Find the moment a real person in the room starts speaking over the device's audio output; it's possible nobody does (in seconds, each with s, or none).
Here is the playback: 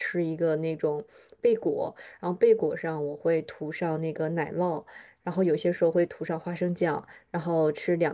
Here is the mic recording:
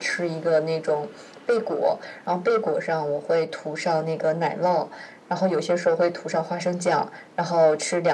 none